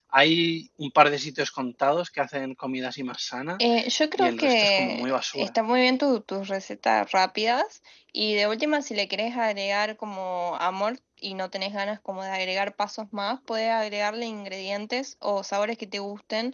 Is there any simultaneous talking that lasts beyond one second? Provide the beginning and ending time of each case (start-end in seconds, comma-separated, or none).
4.2-5.5